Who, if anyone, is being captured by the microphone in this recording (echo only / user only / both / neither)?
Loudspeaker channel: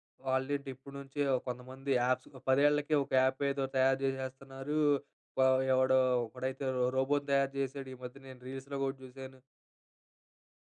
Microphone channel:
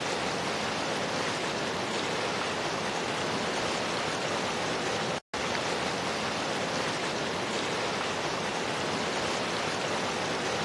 neither